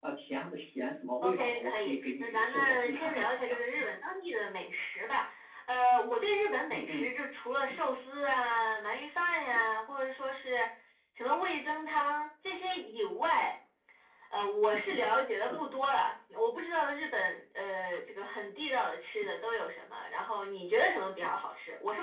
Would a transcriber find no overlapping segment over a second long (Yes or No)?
No